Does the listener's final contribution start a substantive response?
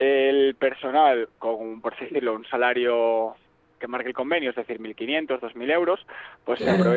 No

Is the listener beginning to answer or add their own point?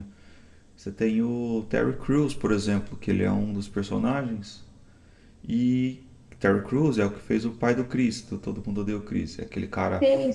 Yes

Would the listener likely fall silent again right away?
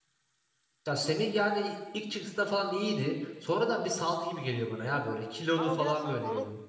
No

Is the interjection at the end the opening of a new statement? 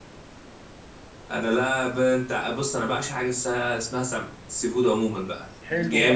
Yes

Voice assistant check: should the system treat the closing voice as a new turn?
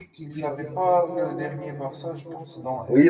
Yes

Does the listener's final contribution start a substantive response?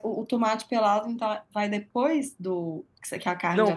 Yes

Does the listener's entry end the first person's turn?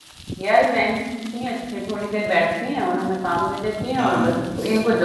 No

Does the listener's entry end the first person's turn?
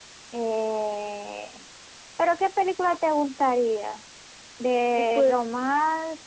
No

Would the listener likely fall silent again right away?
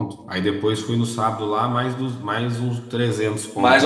No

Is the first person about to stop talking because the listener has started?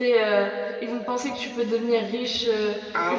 Yes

